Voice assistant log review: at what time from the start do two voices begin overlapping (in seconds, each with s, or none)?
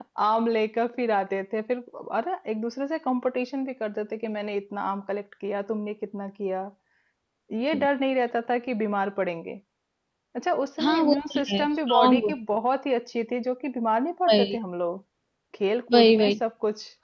10.8 s